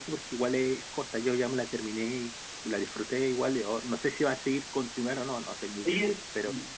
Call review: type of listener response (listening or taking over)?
taking over